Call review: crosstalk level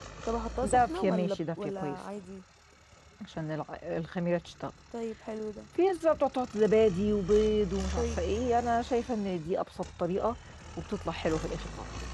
present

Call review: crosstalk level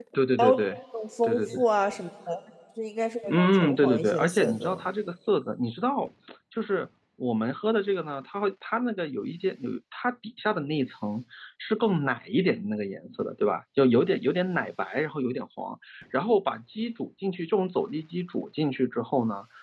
present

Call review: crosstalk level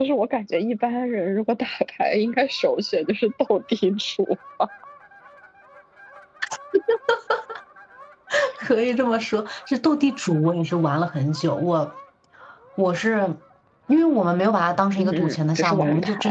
present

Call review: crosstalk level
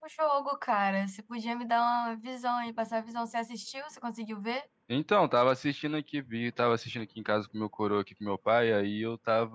none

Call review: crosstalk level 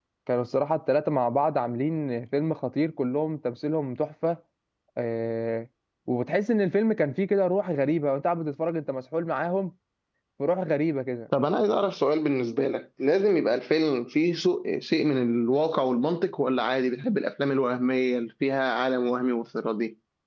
none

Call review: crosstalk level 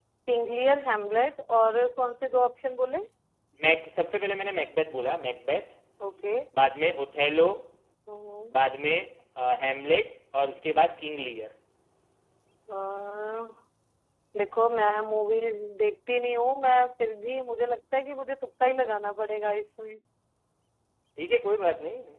none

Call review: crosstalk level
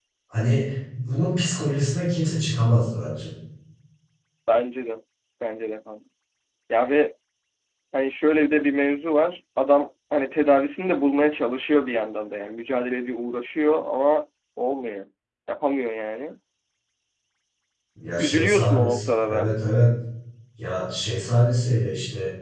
present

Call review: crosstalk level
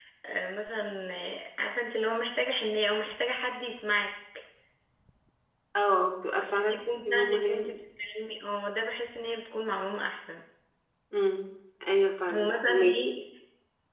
present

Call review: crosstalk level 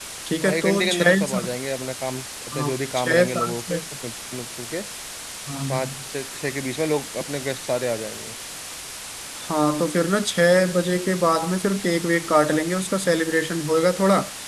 present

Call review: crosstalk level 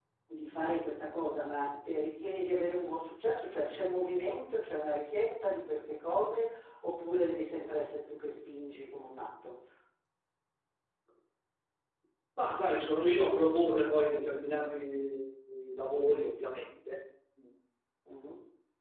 none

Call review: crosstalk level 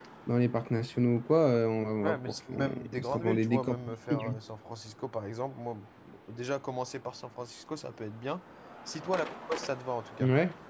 present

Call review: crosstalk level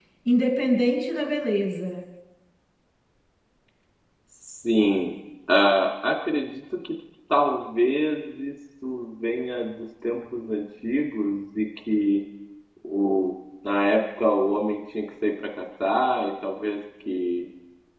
none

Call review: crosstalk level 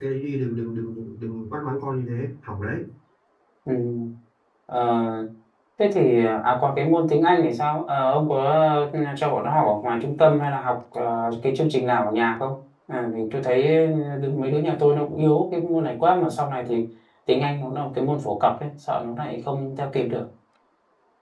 none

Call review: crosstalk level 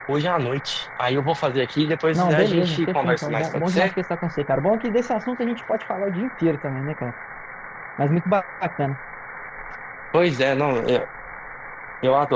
present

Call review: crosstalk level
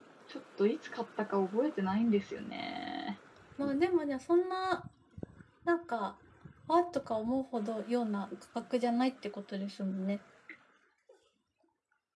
none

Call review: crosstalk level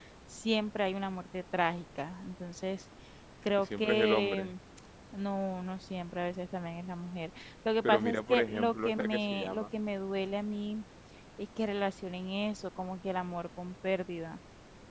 present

